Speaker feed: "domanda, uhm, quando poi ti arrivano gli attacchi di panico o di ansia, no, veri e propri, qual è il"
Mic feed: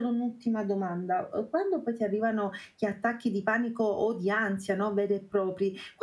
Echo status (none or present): present